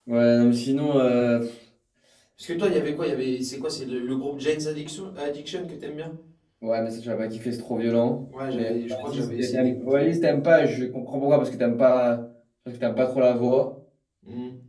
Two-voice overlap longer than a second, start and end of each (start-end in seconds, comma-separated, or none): 8.5-10.0